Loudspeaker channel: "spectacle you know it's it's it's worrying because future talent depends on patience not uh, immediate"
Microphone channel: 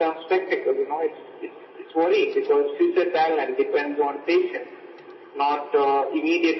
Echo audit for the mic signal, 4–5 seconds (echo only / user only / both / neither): echo only